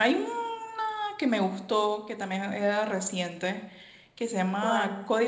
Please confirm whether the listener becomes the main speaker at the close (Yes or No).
No